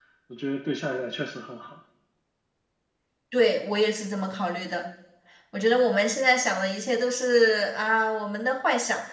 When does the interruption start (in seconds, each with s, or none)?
none